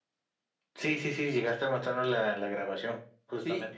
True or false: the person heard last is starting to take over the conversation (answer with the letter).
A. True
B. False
A